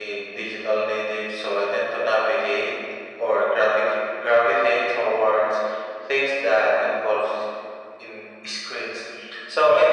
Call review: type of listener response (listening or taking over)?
listening